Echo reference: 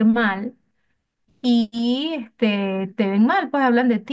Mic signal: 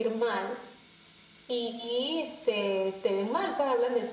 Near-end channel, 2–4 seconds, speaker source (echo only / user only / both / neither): echo only